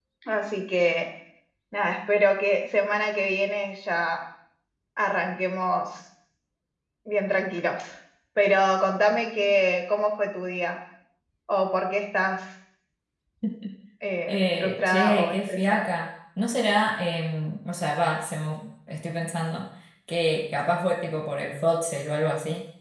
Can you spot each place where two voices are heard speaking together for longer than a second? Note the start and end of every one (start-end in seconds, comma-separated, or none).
14.3-15.8